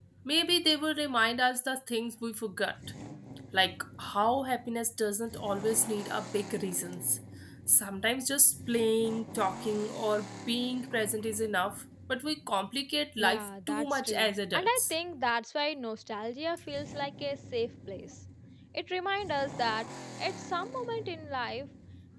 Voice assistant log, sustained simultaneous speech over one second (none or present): present